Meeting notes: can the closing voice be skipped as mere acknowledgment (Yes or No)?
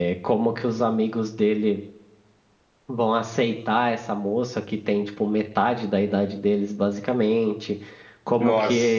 Yes